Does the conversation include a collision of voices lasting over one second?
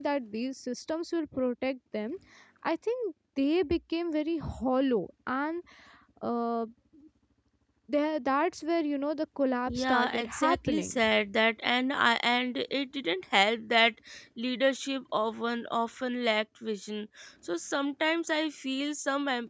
Yes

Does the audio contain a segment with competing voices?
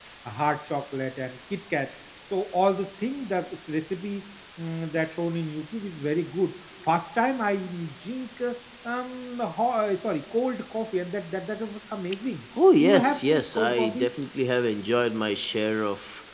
Yes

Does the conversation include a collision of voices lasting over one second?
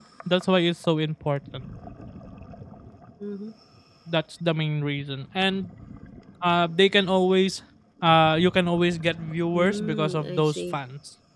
Yes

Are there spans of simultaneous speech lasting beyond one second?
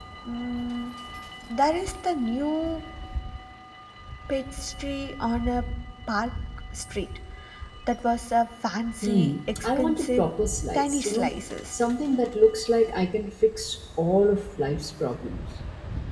Yes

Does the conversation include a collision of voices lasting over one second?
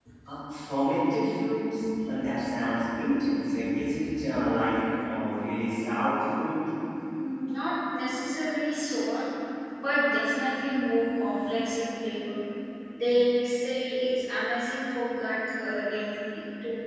No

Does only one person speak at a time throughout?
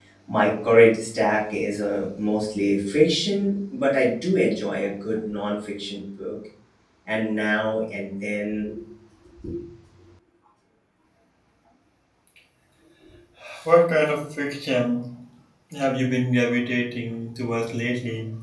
Yes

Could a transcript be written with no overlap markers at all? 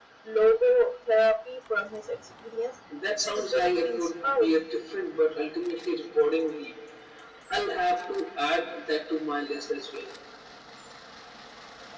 No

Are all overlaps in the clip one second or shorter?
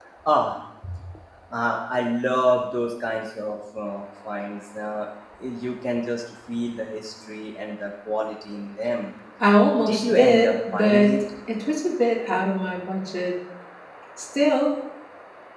No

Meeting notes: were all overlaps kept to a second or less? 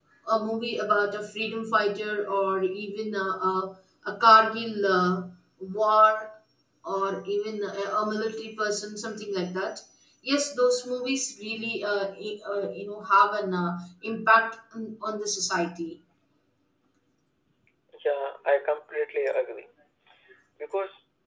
Yes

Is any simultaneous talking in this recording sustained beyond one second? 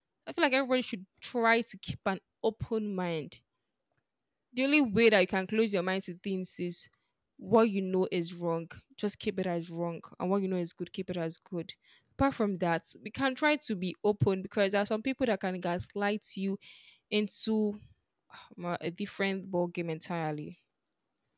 No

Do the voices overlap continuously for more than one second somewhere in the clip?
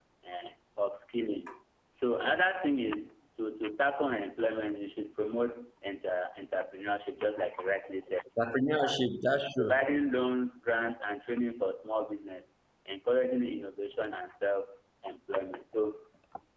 No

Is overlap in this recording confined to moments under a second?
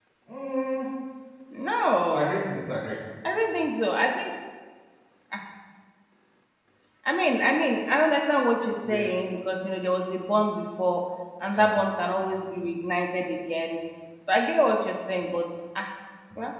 Yes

